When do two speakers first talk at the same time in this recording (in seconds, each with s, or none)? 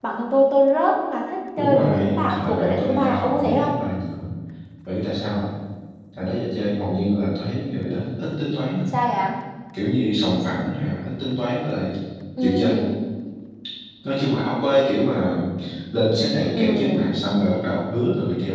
1.6 s